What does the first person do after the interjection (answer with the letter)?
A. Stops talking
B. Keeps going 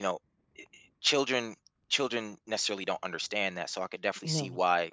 B